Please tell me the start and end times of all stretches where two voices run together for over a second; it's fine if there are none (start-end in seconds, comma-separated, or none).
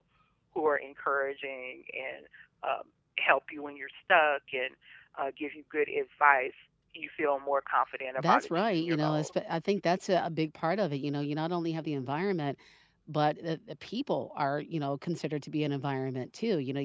8.2-9.5